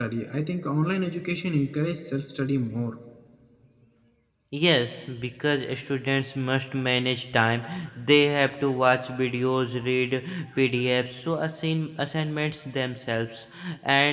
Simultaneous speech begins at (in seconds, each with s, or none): none